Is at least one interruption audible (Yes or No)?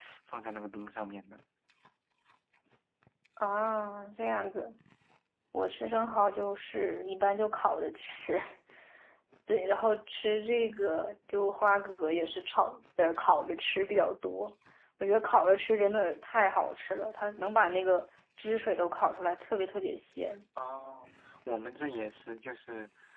No